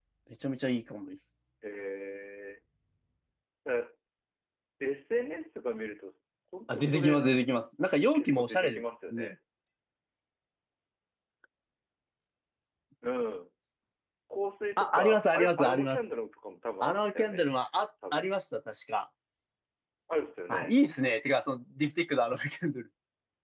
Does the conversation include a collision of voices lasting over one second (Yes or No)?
Yes